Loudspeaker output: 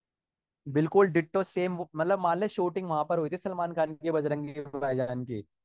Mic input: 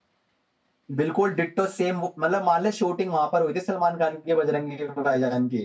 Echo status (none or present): present